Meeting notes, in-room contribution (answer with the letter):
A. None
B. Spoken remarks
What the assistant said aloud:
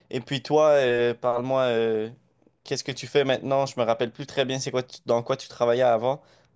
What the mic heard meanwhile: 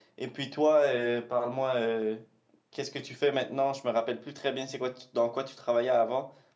A